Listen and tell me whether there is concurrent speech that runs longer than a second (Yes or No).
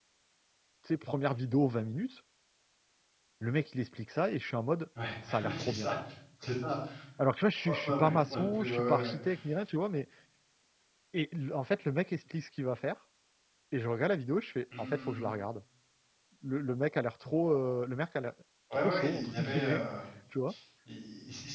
Yes